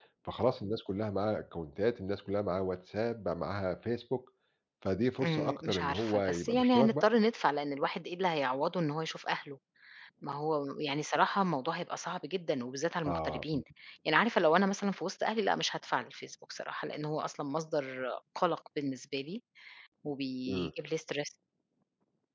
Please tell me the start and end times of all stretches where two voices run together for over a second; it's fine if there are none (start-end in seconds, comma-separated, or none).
5.2-7.1